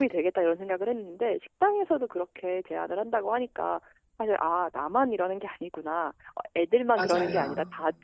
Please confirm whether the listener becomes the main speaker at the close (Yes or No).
No